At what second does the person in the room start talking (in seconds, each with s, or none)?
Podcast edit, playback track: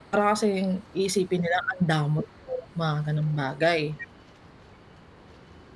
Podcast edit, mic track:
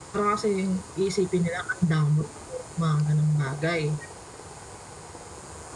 none